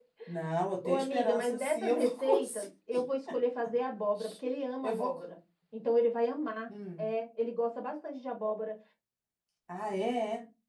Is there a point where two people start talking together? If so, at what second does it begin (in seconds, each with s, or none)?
0.8 s